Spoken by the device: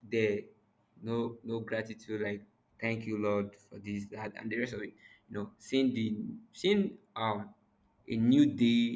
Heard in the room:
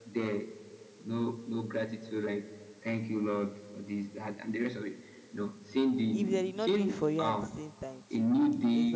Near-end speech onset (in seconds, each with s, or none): 6.1 s